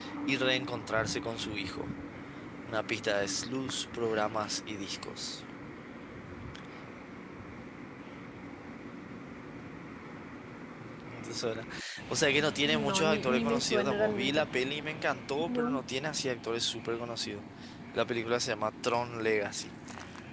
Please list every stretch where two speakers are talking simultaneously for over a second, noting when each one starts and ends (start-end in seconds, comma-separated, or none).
12.6-14.4